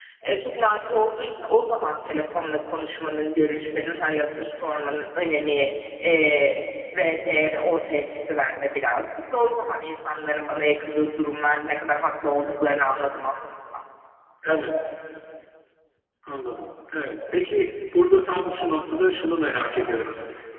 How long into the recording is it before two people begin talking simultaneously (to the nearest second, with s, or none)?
none